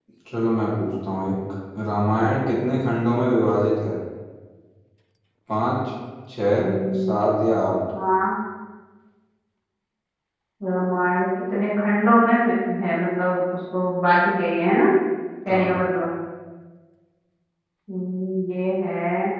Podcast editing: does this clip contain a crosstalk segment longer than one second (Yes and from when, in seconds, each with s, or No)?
No